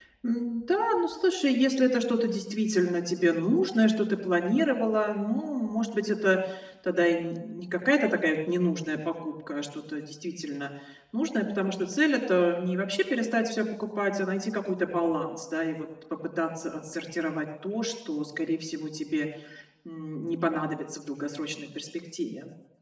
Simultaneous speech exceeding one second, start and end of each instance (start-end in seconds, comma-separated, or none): none